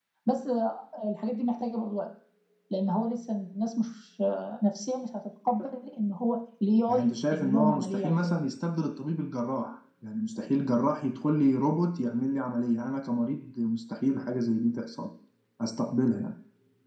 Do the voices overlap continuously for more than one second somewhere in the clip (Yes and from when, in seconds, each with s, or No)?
Yes, from 6.9 s